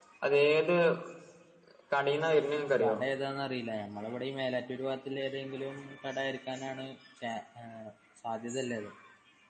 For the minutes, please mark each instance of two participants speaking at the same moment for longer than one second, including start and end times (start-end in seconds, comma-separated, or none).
none